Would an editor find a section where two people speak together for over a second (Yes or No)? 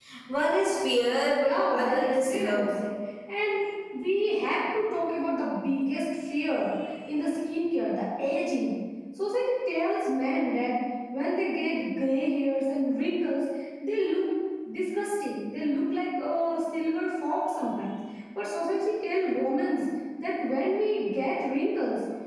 Yes